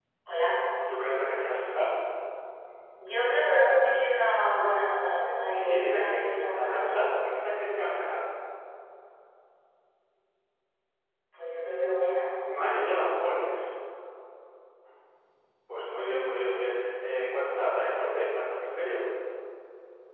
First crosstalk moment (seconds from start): 5.5 s

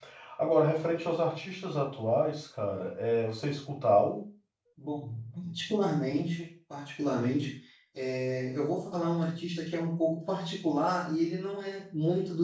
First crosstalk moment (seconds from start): none

